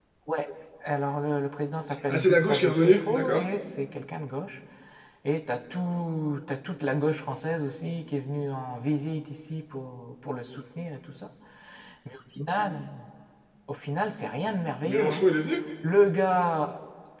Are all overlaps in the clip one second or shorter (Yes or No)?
No